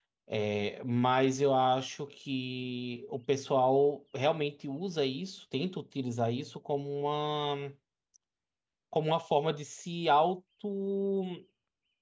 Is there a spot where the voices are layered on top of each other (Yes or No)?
No